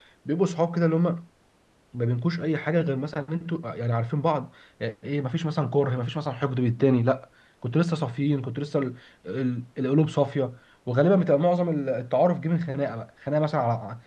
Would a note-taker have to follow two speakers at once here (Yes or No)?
No